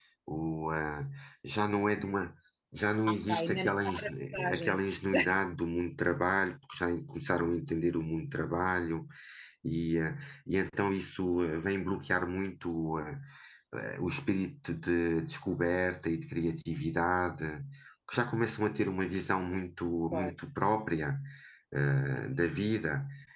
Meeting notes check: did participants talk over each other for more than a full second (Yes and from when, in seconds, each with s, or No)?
Yes, from 3.1 s